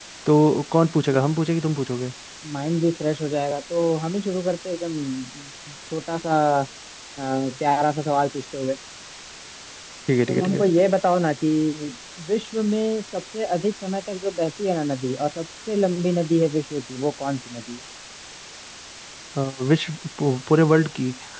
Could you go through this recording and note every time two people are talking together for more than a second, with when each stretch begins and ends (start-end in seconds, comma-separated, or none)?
none